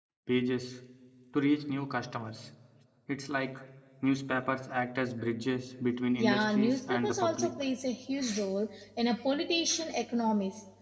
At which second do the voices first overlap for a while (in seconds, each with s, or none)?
6.2 s